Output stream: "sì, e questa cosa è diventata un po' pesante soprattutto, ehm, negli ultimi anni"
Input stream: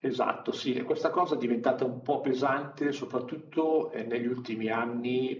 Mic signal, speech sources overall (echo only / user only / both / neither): echo only